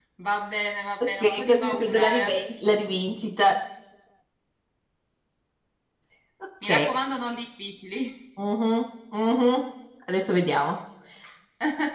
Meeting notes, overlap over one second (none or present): present